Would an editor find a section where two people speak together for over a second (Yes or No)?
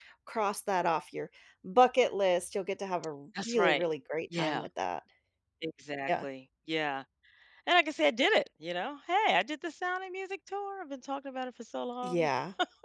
No